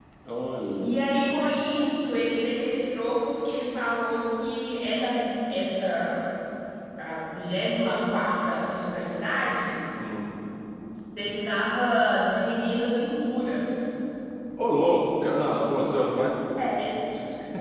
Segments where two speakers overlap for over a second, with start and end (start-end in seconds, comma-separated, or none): none